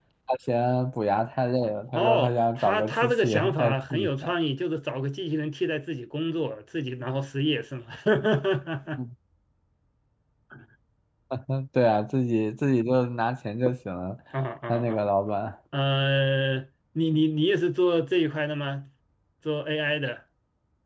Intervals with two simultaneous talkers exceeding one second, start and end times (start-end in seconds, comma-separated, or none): 1.9-4.3